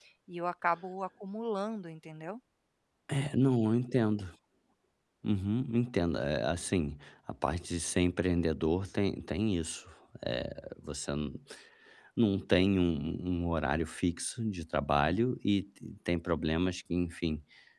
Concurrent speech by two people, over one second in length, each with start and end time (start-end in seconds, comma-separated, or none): none